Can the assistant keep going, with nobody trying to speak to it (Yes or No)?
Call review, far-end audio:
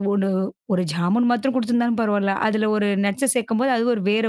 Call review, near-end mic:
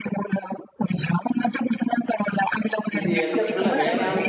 No